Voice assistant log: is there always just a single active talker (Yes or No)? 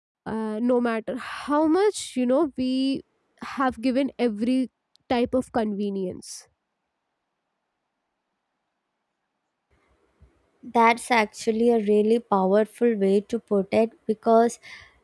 Yes